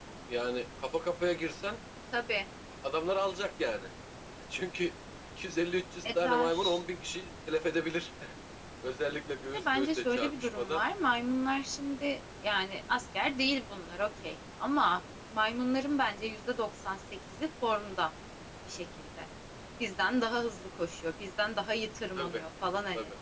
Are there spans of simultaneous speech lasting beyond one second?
Yes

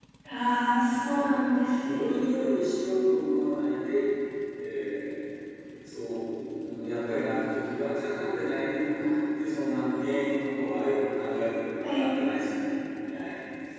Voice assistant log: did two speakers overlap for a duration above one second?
No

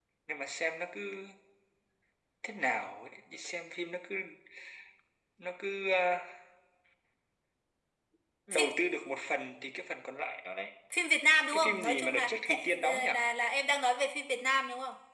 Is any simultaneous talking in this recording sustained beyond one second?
Yes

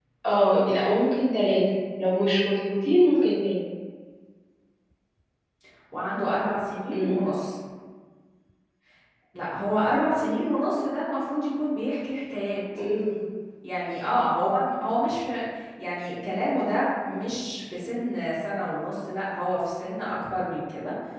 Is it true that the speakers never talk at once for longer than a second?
Yes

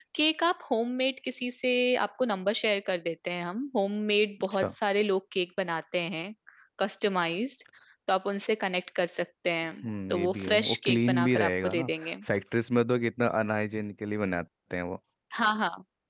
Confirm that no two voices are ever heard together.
No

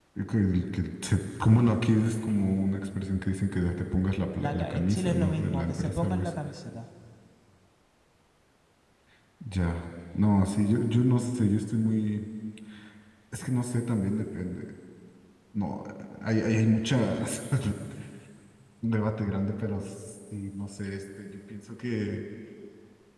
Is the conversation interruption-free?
No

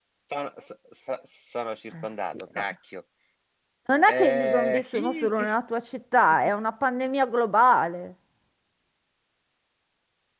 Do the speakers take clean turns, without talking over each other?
No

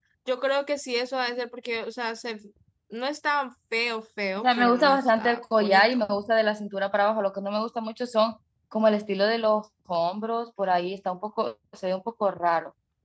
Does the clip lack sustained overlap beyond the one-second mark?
No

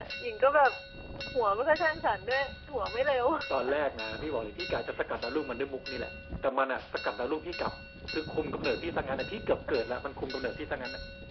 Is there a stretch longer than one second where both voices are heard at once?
No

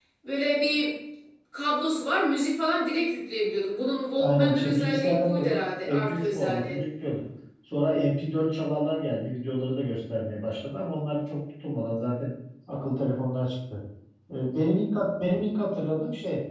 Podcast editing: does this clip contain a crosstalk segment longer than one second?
Yes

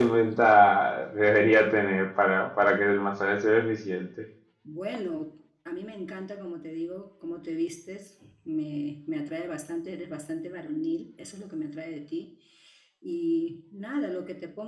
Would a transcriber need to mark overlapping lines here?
No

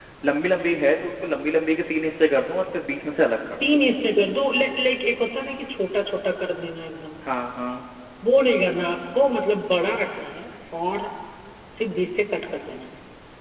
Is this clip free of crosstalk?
Yes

